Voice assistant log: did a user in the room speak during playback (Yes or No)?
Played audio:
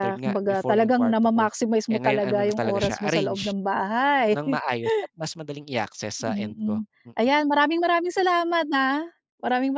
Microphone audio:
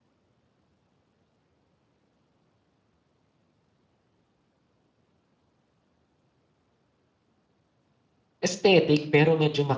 Yes